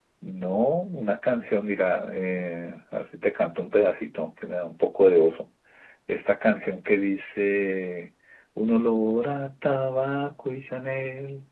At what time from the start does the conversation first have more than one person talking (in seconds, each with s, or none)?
none